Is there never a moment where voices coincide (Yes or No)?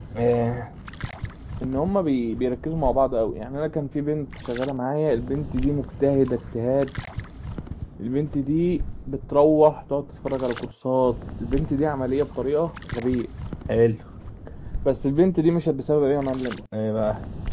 Yes